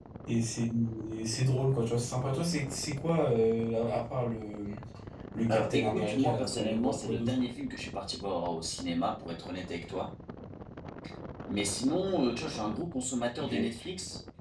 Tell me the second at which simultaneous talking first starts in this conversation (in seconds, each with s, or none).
5.5 s